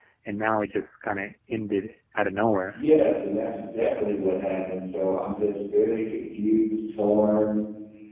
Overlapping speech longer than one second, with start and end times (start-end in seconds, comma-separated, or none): none